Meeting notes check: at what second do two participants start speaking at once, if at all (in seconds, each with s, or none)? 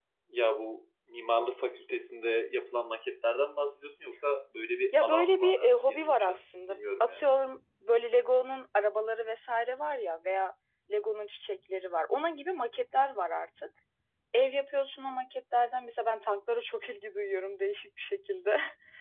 4.9 s